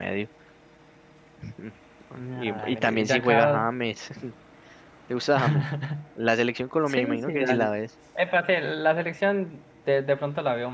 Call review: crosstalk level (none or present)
present